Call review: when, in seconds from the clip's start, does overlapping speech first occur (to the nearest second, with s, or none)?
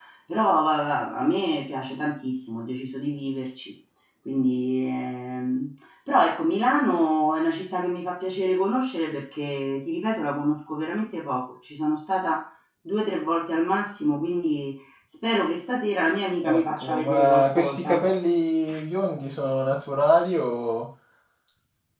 16 s